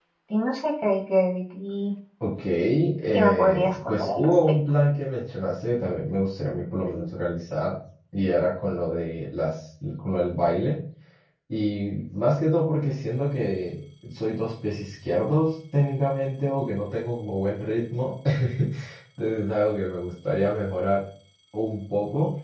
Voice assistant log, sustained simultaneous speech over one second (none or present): present